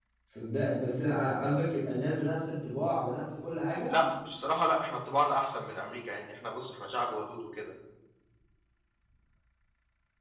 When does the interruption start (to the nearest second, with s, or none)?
none